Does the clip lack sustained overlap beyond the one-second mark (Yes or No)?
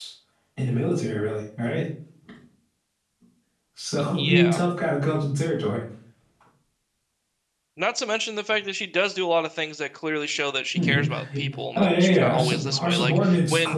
No